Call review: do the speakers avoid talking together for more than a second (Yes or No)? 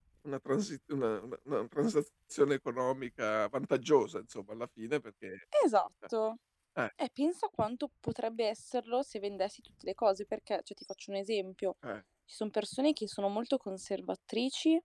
Yes